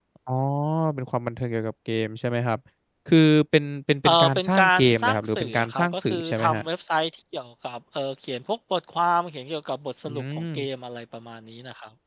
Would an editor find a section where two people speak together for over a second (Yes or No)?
Yes